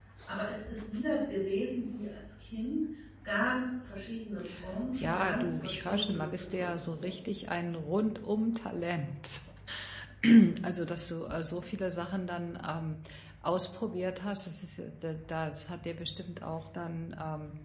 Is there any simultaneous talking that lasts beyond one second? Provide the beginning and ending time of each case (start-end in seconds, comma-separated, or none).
5.0-7.2